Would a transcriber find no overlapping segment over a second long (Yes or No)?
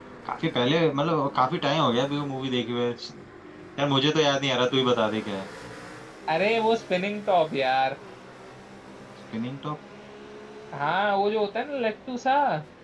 Yes